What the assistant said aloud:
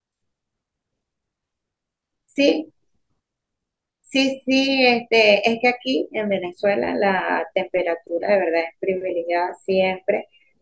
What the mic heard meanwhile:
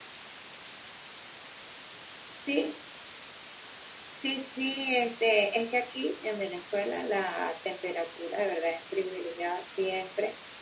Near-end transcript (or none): none